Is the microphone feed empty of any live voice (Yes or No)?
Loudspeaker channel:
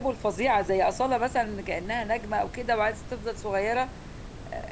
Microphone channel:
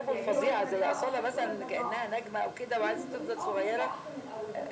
No